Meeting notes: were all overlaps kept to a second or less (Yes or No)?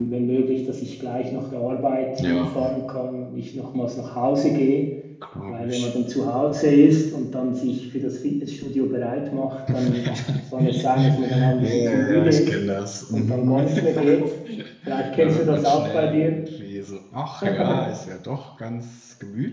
No